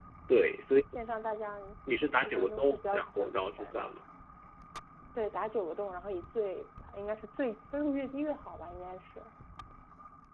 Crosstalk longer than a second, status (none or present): present